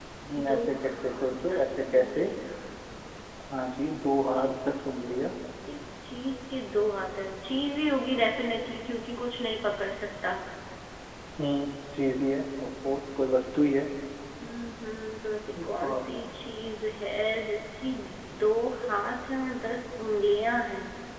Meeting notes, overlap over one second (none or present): present